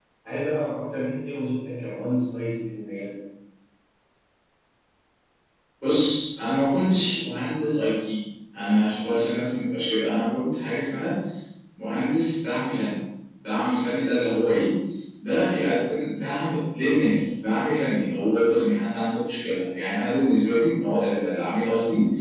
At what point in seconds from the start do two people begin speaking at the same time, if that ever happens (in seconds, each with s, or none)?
none